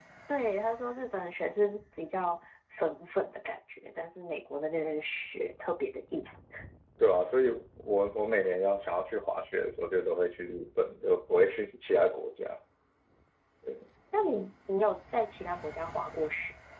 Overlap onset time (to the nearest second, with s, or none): none